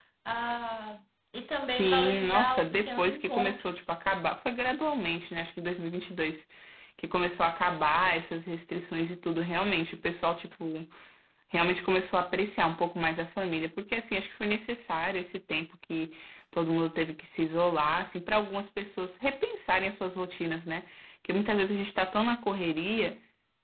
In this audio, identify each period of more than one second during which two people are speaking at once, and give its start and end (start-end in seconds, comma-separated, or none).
1.6-3.8